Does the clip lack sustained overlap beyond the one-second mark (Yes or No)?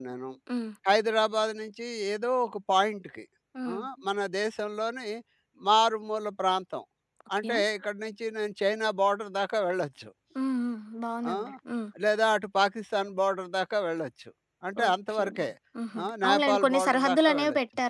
No